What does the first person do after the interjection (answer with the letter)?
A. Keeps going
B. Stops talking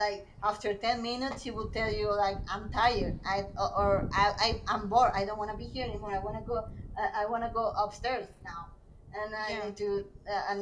A